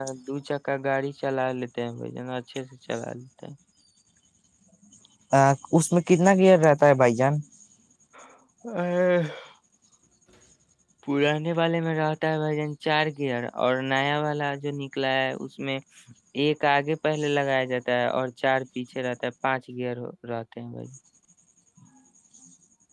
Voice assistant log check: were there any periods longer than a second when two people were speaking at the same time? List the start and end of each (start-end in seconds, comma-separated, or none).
none